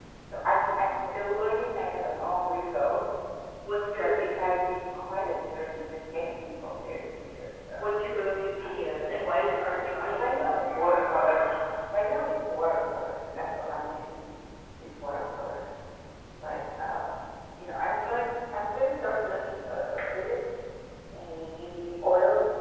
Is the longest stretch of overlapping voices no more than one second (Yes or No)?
Yes